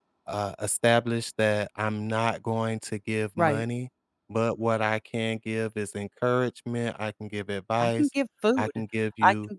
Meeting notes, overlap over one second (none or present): none